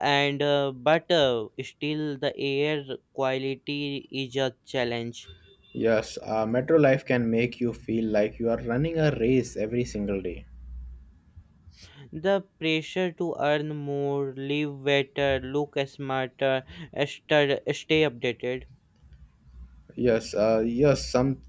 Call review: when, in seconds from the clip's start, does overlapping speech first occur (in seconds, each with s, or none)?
none